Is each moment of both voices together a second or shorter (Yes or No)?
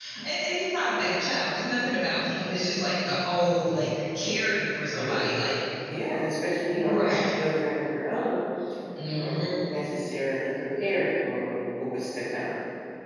Yes